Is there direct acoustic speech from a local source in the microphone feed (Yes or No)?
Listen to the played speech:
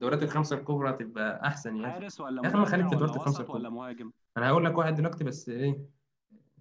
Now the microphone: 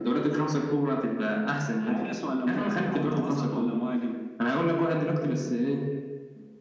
No